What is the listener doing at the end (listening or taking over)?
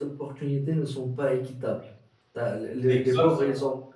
listening